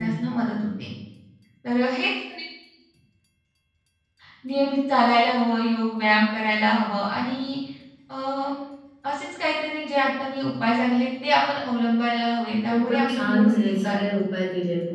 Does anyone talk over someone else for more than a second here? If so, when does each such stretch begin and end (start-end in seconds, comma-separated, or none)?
12.7-14.2